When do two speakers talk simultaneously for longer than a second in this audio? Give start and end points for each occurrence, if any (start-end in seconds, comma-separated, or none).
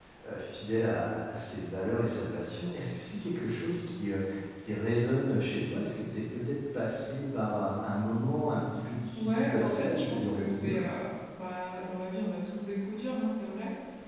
9.1-10.8